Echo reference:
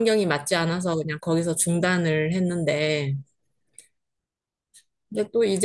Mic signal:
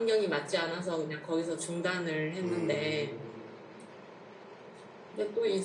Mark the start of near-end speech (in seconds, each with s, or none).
2.4 s